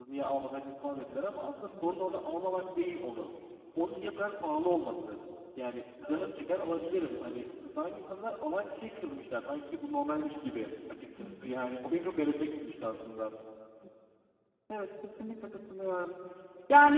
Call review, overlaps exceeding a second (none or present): none